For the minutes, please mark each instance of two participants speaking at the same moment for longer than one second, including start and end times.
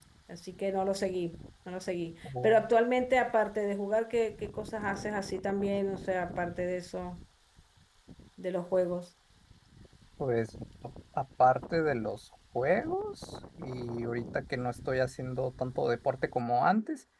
none

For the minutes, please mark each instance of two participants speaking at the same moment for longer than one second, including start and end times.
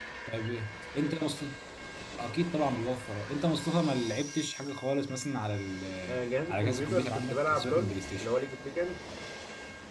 6.5-8.3

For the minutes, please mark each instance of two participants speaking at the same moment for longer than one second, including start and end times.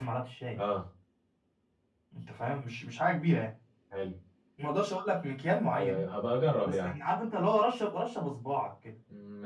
none

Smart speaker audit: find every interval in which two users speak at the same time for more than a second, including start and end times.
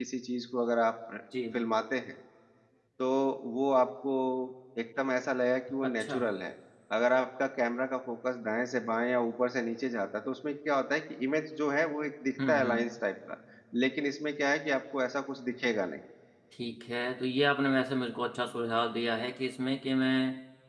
none

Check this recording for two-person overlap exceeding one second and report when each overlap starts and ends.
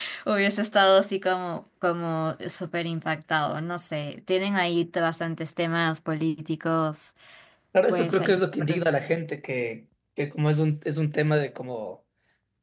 7.9-9.1

